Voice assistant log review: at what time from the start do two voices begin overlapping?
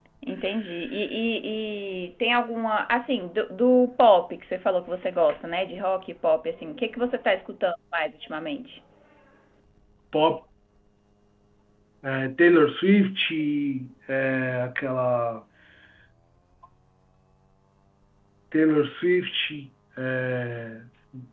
none

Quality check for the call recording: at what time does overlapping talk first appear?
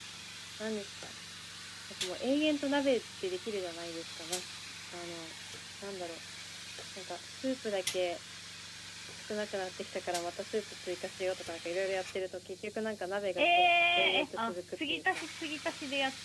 13.4 s

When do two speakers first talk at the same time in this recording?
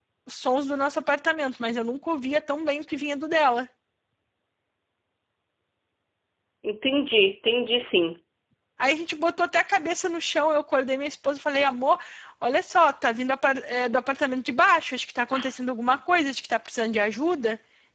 none

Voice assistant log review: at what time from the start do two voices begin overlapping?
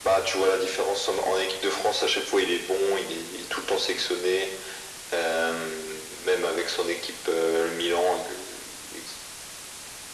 none

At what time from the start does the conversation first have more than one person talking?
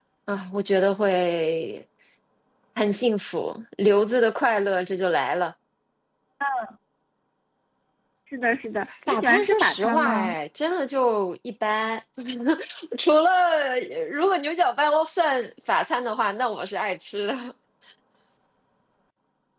9.1 s

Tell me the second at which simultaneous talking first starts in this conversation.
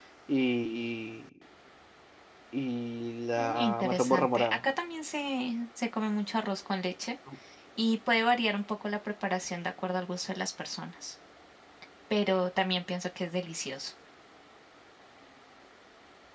3.4 s

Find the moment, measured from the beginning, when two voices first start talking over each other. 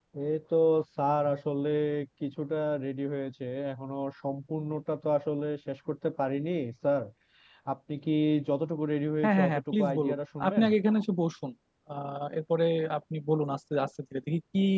9.2 s

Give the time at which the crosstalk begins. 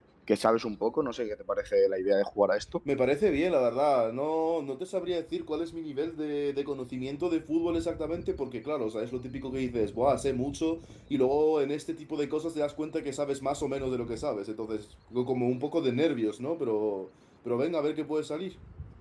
none

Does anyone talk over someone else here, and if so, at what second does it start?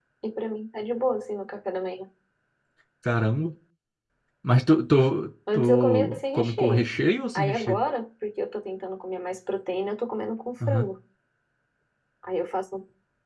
5.5 s

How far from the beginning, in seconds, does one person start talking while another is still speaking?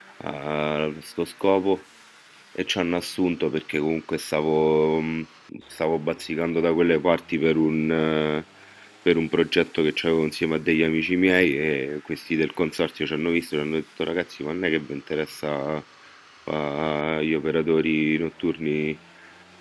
none

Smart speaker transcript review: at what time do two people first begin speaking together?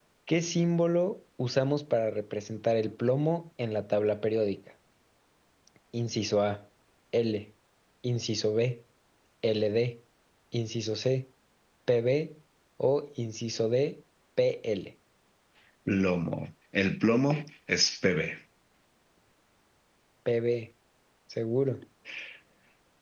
none

